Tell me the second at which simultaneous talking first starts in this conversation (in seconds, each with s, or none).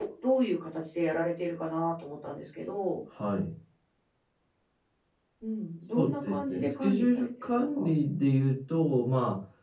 5.9 s